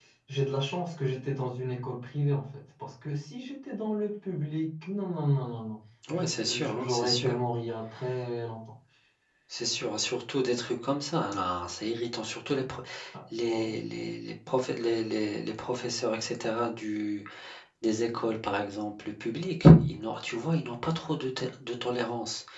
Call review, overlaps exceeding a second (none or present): present